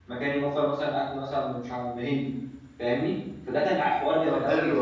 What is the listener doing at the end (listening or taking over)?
taking over